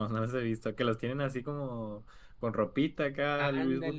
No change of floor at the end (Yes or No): No